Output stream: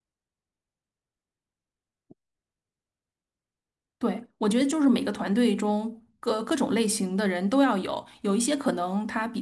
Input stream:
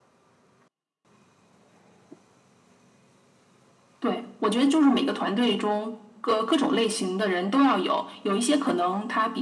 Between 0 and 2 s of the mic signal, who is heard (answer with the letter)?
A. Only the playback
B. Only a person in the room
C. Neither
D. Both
C